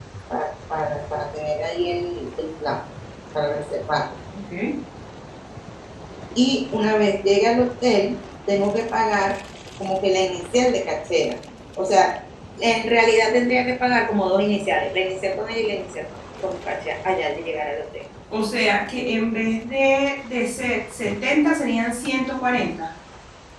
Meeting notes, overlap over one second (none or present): none